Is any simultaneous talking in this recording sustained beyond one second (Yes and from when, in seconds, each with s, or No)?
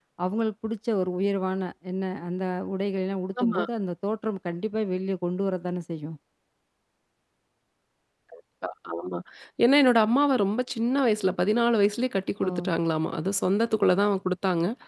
No